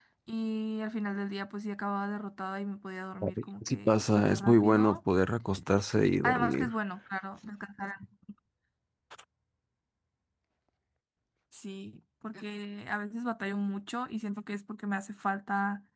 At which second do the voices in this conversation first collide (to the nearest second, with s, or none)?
3 s